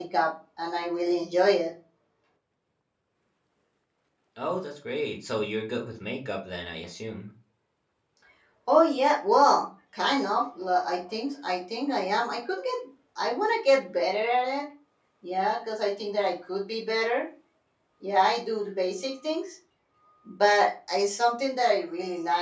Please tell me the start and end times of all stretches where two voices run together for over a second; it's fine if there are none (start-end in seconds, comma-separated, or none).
none